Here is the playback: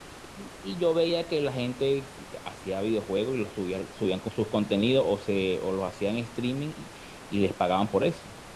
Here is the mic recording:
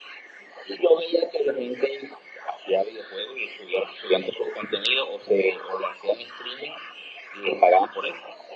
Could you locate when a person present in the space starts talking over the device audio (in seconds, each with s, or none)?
none